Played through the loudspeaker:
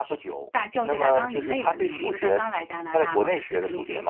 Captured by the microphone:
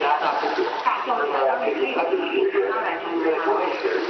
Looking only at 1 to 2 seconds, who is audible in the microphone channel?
echo only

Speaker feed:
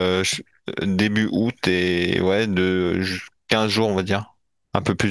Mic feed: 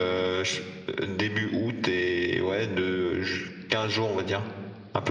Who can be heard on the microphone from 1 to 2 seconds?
echo only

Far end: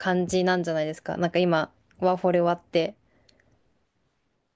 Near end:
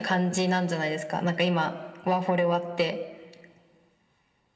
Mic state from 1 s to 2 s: echo only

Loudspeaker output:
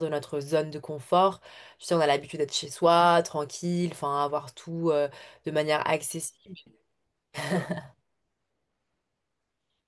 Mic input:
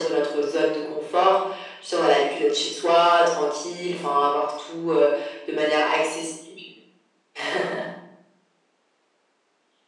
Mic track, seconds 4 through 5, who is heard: echo only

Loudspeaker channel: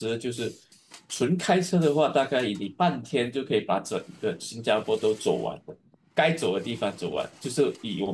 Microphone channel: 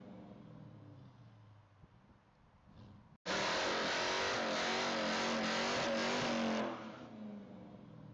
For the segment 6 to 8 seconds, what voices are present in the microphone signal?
neither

